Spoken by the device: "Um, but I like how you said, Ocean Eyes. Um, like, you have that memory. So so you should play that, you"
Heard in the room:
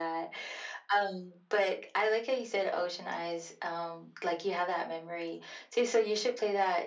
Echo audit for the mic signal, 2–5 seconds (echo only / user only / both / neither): echo only